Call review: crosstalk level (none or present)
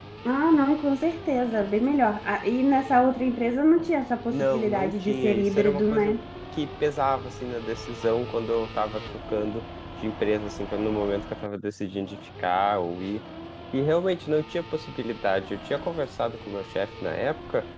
present